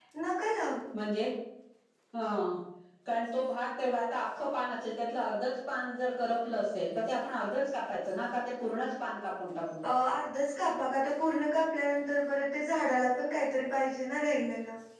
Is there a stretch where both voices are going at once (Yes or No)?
No